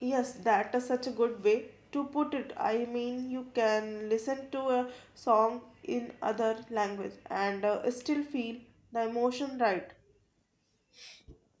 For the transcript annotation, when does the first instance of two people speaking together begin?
none

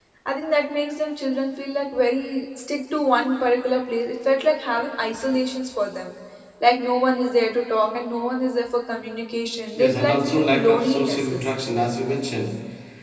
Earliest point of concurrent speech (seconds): 9.8 s

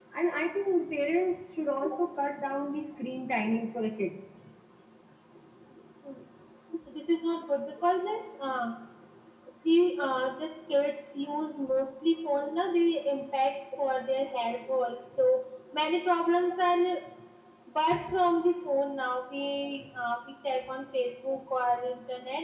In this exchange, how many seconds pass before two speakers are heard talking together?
none

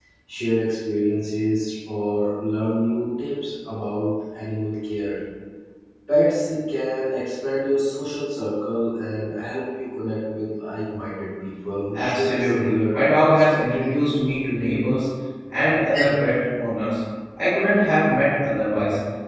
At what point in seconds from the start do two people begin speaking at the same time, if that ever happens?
11.9 s

